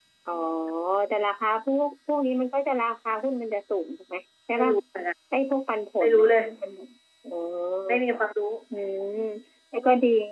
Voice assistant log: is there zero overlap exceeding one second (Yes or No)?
Yes